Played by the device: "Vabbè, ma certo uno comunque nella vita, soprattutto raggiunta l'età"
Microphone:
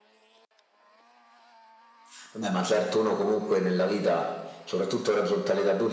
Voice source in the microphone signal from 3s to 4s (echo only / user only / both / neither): echo only